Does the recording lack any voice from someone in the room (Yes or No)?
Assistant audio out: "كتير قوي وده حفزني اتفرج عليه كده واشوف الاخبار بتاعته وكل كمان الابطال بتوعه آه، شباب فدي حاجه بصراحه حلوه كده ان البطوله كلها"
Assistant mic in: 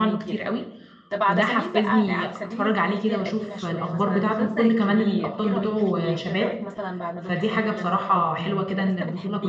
No